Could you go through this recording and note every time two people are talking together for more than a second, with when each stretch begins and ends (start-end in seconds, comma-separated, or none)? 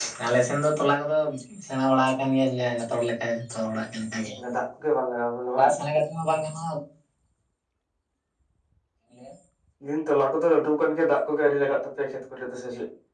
none